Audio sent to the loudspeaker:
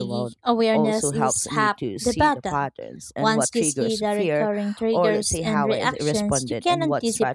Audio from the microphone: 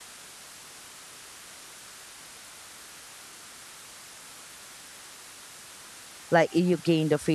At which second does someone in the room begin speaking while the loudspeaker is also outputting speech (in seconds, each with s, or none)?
6.3 s